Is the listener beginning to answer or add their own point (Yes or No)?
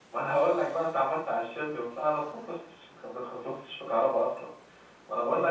No